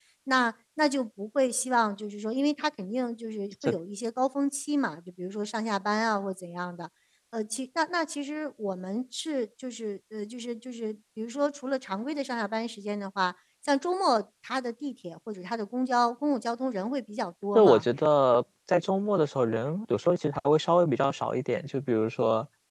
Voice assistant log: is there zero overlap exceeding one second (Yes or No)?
Yes